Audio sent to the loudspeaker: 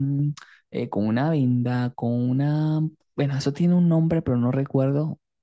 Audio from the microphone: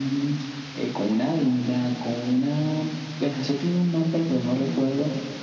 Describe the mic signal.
echo only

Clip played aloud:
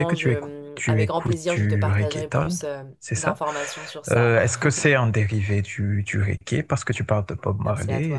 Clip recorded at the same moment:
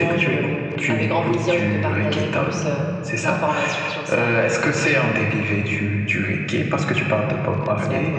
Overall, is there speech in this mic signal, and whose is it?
echo only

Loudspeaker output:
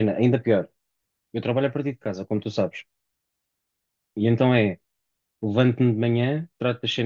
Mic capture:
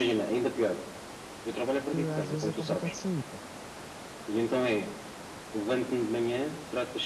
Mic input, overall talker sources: both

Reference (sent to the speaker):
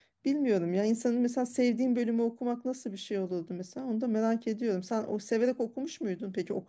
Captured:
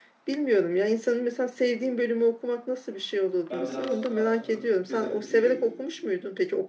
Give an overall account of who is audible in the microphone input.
both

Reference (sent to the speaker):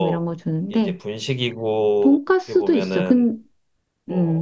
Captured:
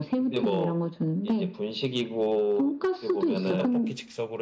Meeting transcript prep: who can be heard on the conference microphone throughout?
both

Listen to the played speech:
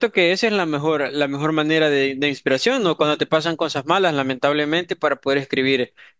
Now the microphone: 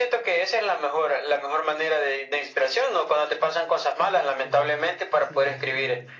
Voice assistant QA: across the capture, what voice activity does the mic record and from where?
both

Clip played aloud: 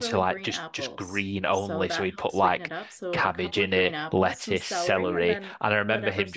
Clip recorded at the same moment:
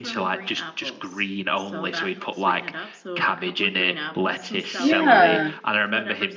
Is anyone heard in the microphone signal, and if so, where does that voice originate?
both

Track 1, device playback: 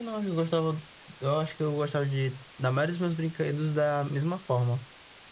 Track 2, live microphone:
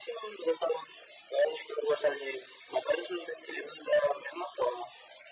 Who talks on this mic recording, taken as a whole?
echo only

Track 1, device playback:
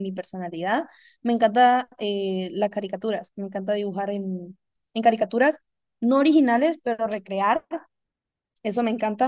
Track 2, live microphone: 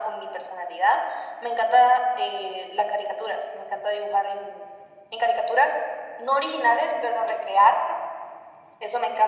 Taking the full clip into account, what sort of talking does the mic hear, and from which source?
echo only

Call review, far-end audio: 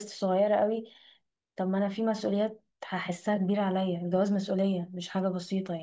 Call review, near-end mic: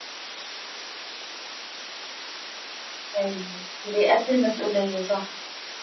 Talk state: user only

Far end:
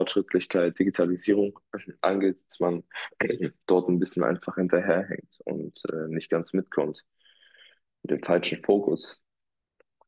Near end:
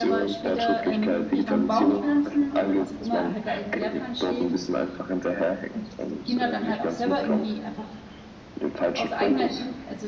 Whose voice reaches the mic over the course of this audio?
both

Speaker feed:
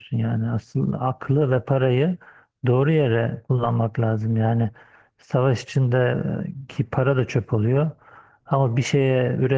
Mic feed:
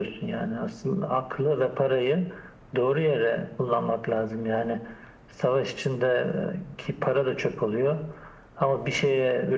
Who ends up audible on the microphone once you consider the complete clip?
echo only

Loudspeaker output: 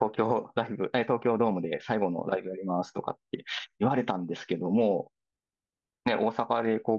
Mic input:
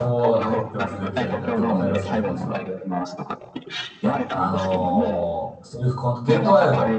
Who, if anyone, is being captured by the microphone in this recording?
both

